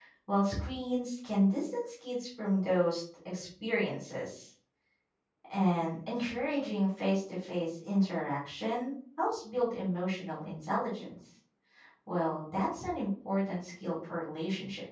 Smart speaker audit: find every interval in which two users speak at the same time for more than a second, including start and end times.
none

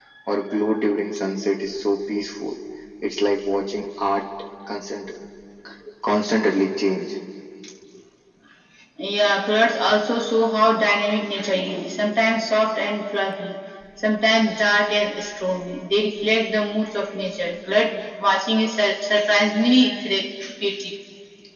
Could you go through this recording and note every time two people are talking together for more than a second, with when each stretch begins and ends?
none

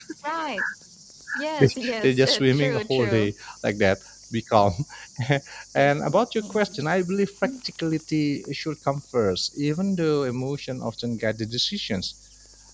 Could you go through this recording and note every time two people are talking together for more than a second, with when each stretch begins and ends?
1.6-3.3

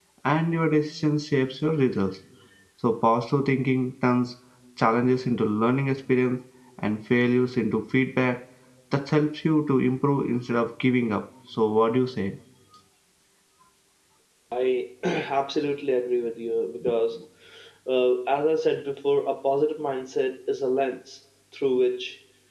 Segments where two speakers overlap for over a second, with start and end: none

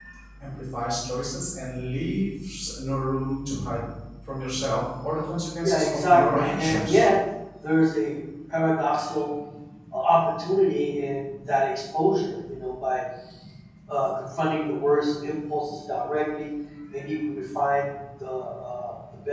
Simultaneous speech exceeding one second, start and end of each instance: 5.6-7.0

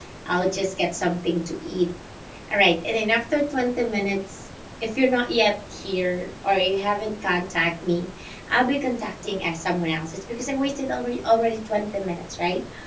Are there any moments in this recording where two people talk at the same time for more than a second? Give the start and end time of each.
none

